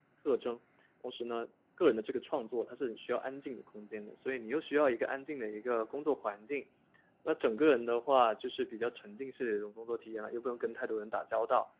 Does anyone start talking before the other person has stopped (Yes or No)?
No